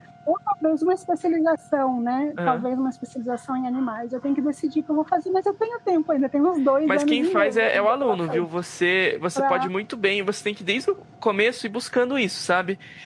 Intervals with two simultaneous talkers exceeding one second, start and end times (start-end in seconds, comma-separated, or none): 6.9-8.4